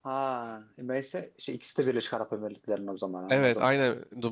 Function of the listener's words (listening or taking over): taking over